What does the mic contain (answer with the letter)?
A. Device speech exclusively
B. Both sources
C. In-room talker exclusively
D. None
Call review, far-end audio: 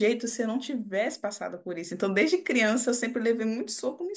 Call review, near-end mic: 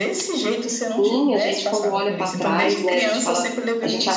B